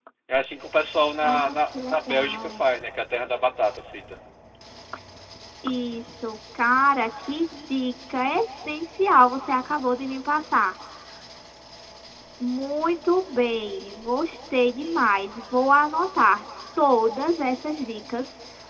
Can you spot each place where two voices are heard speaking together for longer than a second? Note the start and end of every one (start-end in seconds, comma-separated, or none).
1.2-2.6